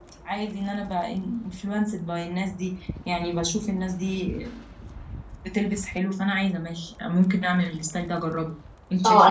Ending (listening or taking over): taking over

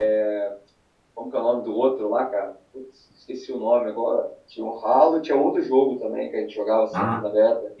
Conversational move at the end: taking over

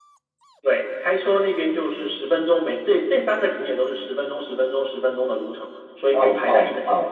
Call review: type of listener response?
taking over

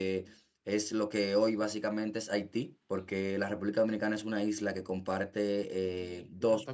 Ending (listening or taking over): taking over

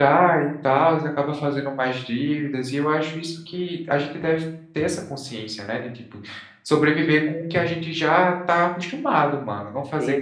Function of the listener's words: taking over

